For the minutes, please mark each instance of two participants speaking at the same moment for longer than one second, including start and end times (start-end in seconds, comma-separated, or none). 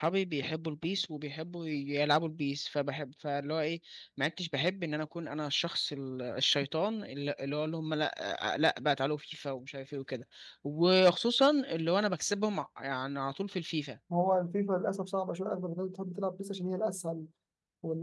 none